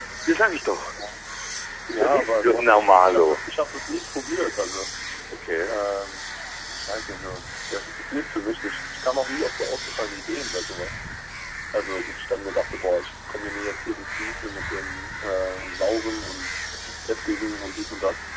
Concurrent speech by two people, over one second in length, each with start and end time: 2.0-3.4

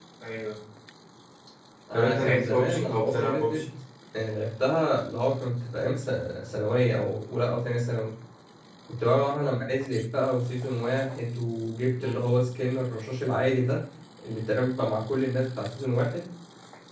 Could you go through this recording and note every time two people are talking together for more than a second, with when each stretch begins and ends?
1.9-3.6

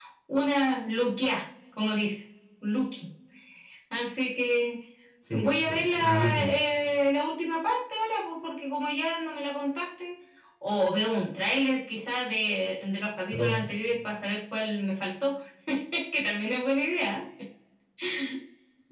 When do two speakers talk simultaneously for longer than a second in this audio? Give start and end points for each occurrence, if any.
5.3-6.5

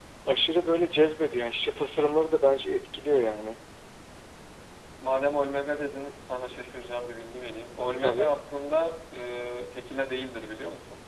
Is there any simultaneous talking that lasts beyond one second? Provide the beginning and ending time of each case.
none

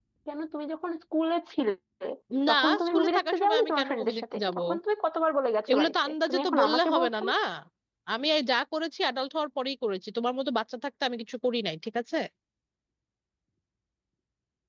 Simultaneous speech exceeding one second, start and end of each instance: 2.5-4.6, 5.7-7.2

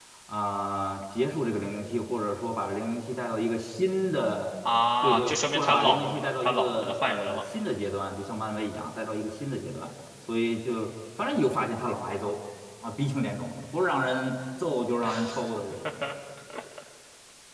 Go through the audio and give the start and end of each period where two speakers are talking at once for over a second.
5.0-7.4

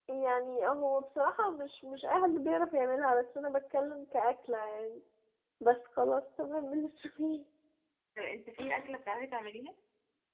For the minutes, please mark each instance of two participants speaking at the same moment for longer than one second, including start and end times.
none

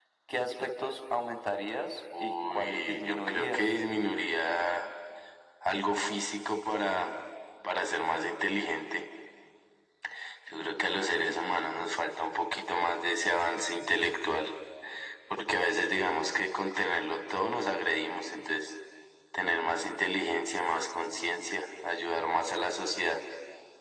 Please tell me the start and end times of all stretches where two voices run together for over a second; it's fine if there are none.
2.2-3.7

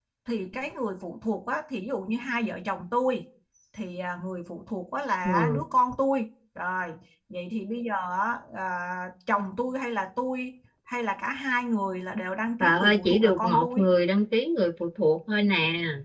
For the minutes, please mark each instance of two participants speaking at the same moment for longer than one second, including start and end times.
12.6-13.8

